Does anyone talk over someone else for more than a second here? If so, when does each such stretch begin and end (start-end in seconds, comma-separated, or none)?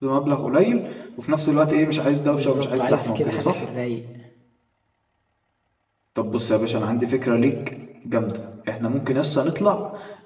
2.3-3.6